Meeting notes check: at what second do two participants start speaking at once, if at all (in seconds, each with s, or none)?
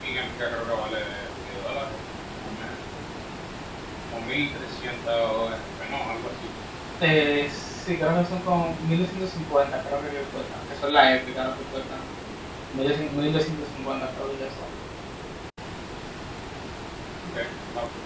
none